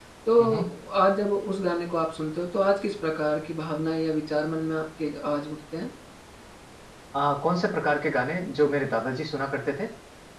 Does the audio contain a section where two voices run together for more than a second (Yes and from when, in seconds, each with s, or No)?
No